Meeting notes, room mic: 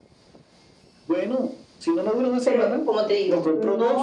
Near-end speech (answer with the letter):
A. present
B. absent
A